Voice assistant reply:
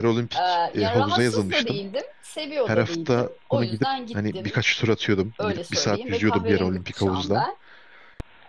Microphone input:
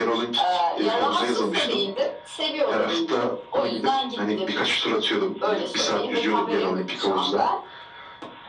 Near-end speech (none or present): none